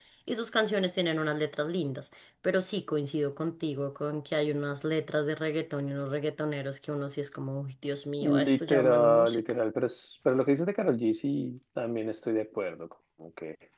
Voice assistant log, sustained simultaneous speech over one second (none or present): present